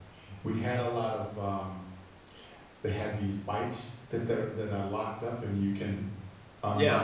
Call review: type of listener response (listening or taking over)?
taking over